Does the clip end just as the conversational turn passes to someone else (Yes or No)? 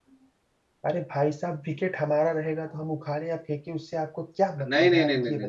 Yes